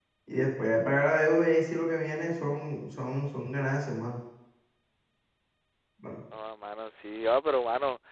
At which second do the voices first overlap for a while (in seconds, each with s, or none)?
none